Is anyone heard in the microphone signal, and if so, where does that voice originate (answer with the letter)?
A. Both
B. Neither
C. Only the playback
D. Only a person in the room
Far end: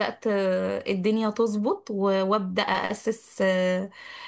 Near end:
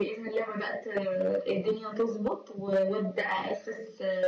C